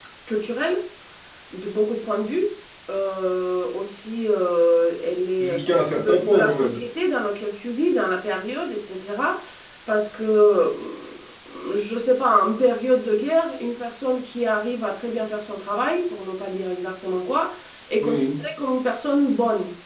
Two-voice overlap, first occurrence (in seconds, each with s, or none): 5.4 s